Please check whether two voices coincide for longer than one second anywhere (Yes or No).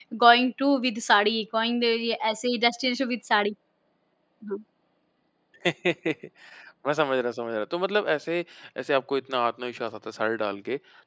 No